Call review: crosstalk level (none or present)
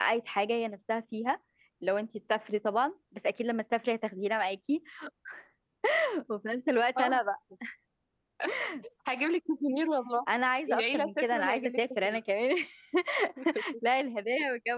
present